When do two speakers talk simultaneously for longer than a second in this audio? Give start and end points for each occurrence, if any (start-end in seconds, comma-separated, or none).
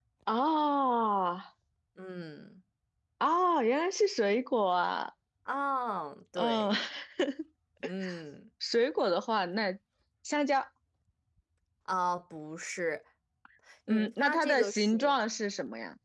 13.9-15.1